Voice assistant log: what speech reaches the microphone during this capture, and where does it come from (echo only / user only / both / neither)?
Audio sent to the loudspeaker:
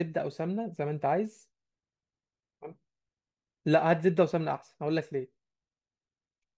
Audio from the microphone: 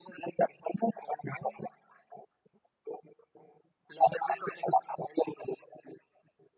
echo only